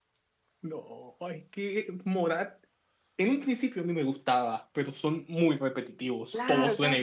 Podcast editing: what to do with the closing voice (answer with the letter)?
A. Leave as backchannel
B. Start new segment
B